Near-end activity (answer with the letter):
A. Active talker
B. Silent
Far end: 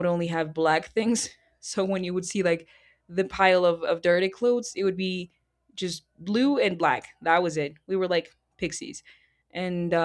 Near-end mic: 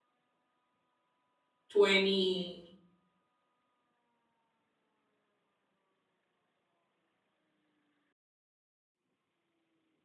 A